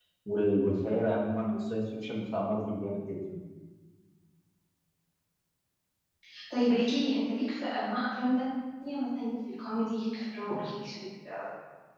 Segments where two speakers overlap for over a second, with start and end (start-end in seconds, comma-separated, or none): none